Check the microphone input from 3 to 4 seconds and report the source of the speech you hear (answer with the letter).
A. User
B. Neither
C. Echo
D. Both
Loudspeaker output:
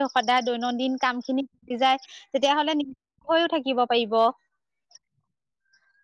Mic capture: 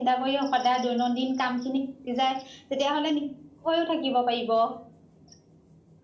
C